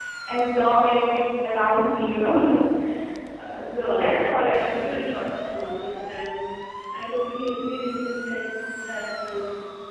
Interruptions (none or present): present